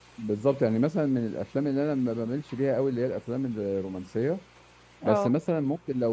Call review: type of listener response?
listening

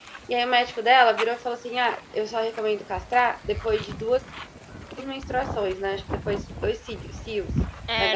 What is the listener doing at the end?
taking over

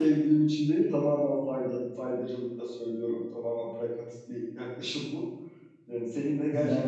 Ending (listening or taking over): listening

